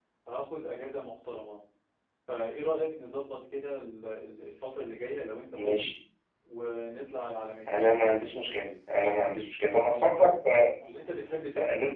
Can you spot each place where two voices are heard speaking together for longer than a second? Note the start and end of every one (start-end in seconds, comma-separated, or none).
none